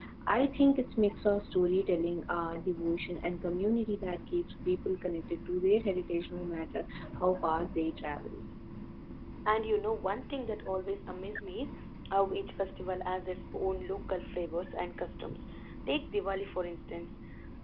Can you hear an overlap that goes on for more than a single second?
No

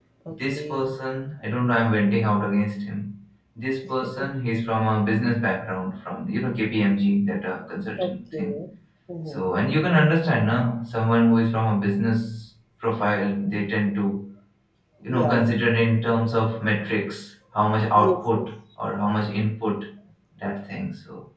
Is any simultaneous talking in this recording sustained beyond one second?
No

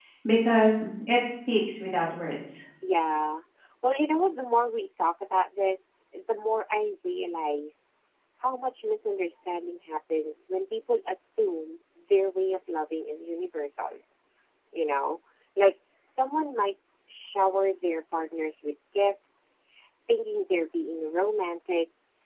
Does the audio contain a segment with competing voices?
No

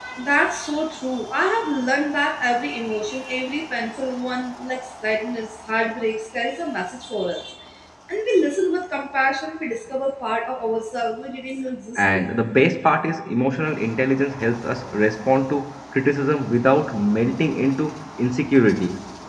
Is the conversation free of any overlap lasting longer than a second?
Yes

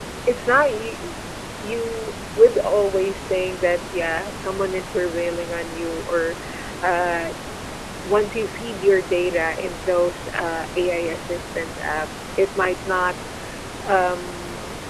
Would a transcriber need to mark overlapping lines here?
No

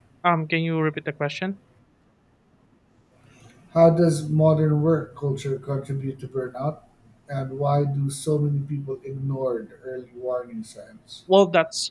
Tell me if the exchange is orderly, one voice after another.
Yes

